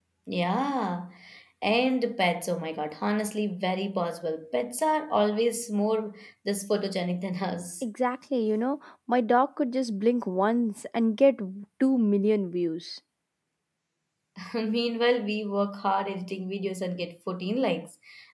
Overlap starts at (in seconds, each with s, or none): none